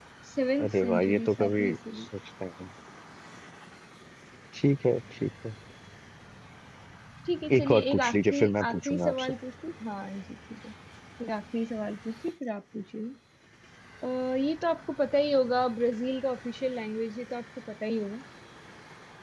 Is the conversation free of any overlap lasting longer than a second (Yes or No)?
No